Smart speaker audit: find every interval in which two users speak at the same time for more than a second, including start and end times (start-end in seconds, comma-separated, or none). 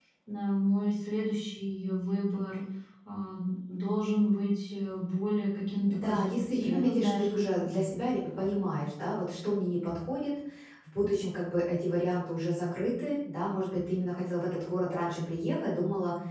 5.9-7.4